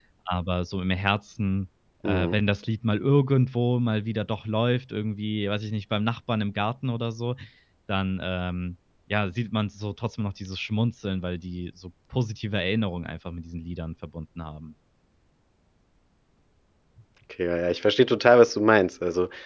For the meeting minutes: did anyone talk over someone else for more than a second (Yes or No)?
No